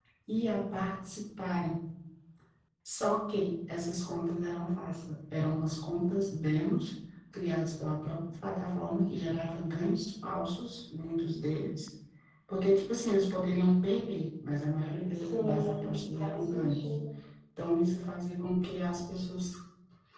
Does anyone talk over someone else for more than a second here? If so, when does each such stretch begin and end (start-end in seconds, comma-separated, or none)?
15.1-16.8